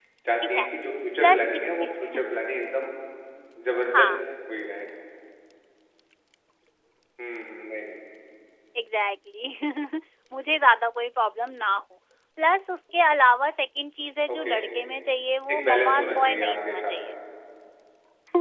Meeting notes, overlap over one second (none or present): present